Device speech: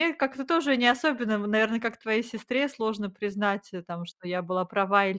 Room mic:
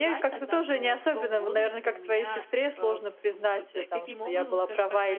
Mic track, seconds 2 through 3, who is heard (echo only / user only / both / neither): both